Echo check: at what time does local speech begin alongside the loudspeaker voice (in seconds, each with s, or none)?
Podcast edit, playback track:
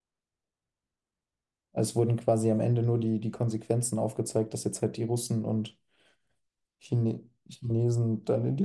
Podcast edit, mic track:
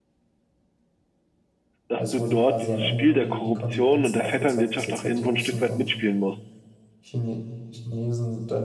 1.9 s